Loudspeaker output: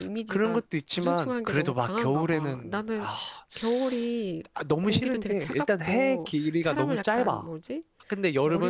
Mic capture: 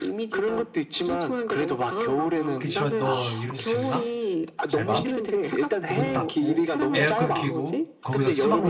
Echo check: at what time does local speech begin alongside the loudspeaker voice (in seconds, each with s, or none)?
2.6 s